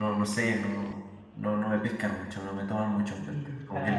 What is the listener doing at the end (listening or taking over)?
taking over